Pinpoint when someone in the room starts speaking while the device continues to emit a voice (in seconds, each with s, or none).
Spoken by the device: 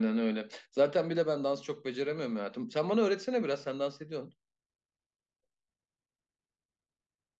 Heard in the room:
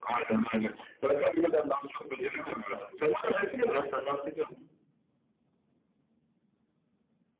none